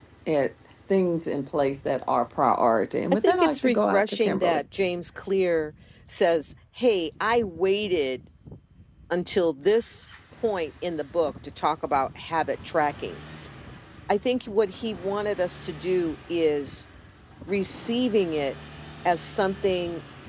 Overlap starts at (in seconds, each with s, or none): 3.2 s